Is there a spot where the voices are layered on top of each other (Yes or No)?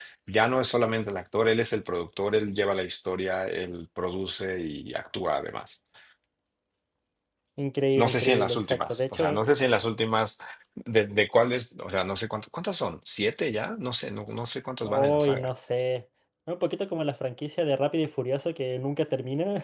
Yes